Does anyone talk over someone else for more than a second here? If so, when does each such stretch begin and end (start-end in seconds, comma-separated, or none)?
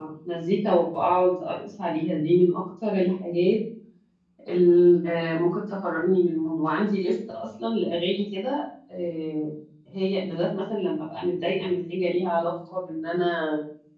none